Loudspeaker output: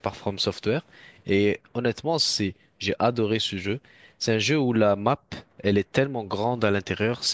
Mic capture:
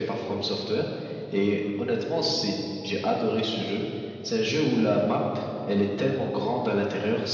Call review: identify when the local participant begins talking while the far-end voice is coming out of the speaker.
none

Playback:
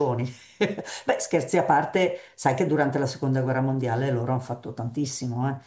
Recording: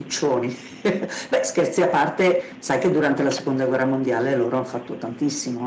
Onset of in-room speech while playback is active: none

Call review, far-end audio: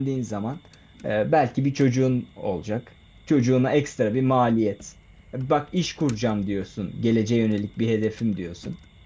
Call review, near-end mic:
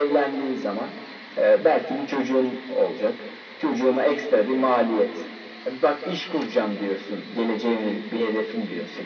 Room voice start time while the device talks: none

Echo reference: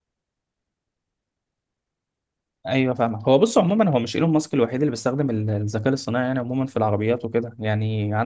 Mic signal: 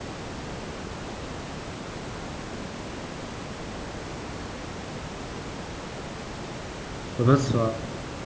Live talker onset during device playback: 7.1 s

